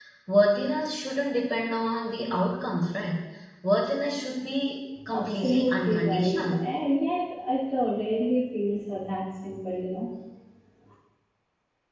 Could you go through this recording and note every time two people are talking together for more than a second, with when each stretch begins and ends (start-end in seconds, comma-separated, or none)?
5.1-6.7